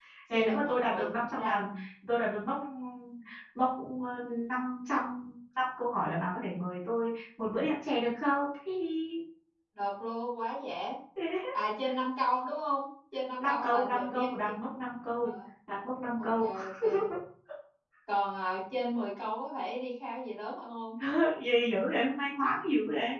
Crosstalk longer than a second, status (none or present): present